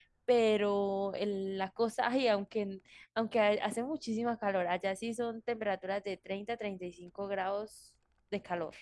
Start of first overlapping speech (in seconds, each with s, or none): none